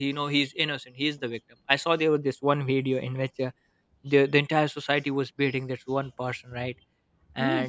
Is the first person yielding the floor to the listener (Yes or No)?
No